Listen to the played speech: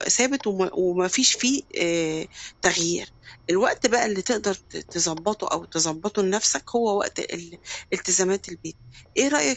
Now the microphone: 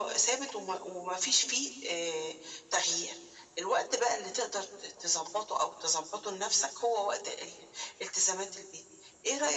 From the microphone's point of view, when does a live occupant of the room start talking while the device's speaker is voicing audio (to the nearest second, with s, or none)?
none